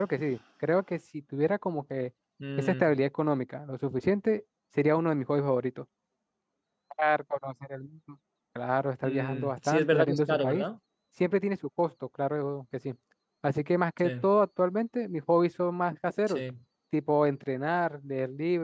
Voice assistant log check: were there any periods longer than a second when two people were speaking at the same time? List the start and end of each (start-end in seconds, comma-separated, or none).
9.0-10.6